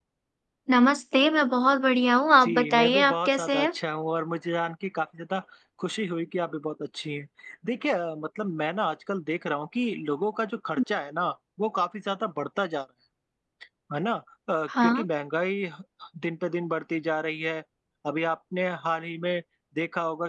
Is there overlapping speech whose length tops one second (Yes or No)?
Yes